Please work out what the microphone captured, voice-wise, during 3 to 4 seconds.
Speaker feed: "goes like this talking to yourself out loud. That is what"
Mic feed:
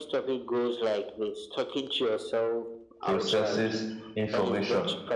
both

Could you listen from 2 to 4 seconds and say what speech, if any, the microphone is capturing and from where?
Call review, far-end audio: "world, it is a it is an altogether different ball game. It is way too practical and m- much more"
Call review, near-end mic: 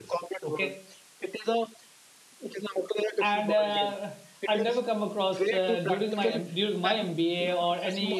both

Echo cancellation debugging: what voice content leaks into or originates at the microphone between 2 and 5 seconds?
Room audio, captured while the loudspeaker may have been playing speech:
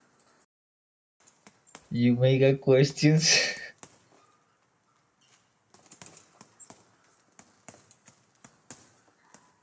user only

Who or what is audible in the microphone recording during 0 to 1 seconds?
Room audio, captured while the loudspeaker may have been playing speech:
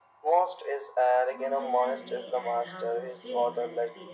echo only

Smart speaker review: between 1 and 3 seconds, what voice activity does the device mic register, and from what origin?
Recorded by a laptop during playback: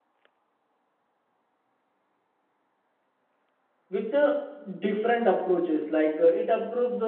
neither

